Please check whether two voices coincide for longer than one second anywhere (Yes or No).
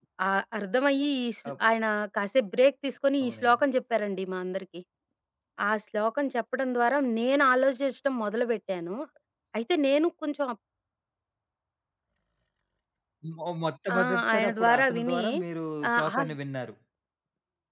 Yes